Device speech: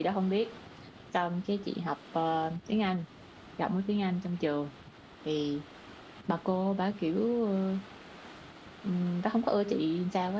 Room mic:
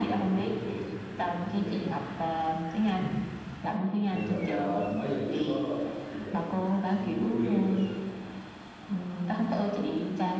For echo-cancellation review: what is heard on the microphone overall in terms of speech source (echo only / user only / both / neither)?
both